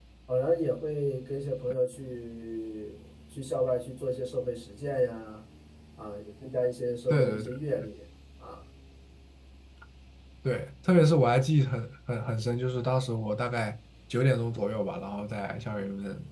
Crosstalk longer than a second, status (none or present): none